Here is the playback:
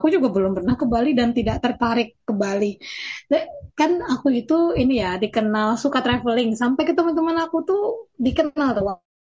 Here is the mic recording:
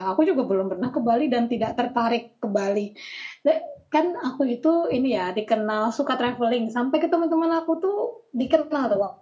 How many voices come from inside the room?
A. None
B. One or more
A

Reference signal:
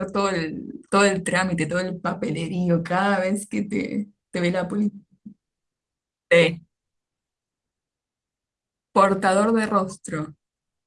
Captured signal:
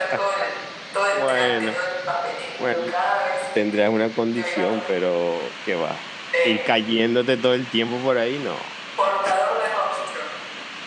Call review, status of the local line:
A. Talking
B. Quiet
A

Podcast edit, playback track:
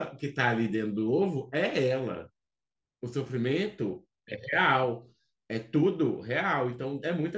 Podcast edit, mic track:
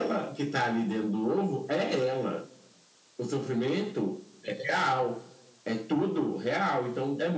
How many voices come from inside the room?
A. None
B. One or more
A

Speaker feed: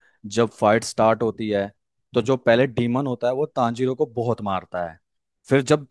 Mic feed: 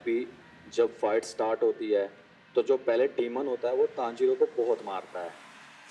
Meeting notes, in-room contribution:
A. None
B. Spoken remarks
A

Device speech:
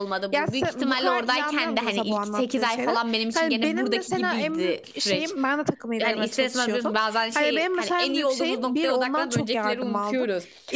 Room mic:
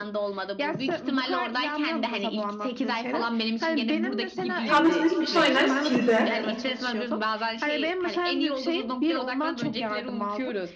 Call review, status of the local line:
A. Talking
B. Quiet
A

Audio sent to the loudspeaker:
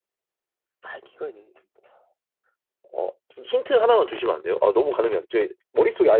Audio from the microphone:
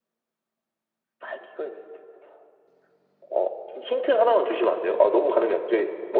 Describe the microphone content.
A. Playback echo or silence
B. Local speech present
A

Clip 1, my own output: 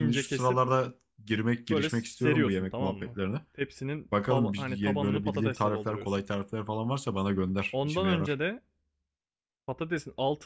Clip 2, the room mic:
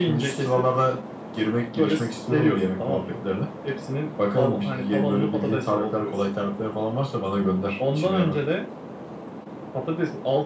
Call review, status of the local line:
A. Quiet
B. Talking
A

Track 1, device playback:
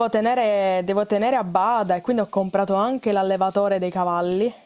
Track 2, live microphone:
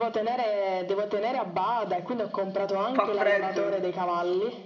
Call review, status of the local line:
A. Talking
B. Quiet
A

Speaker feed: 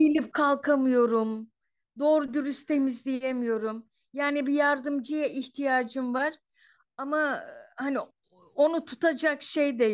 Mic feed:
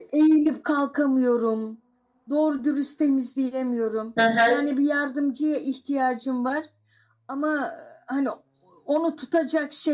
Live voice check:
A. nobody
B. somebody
B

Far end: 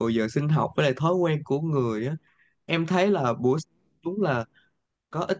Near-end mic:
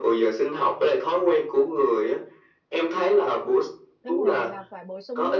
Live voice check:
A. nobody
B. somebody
B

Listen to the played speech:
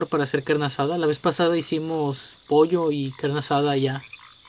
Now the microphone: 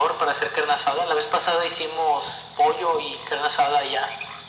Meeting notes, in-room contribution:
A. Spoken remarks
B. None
B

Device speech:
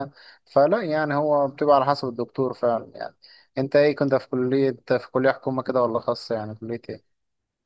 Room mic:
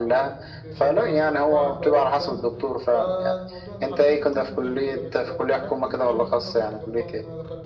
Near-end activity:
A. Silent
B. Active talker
B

